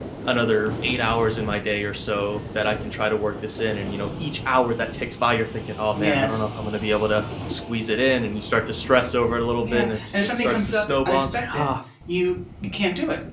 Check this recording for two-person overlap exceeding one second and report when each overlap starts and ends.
9.6-11.7

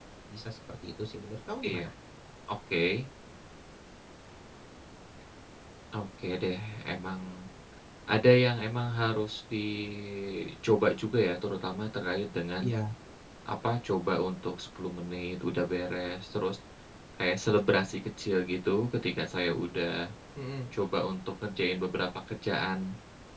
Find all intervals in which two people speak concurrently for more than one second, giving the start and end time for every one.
none

